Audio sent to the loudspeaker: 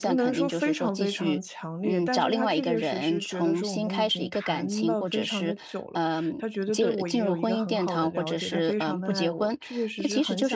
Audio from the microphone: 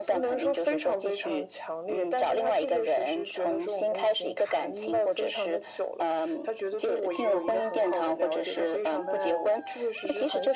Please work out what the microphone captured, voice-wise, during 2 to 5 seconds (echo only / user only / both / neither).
echo only